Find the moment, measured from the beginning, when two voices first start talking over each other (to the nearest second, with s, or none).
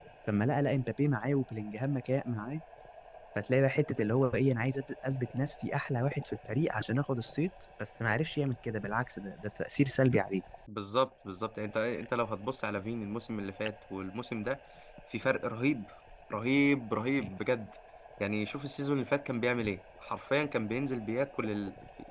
none